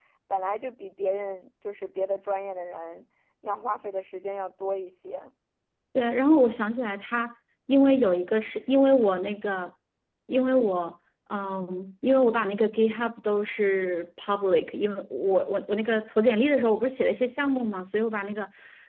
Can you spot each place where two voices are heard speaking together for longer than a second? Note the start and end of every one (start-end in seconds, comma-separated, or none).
none